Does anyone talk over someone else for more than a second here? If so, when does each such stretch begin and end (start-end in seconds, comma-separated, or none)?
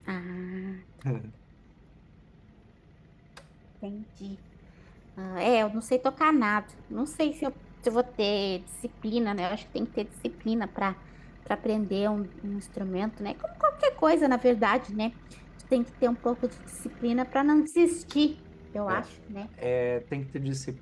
none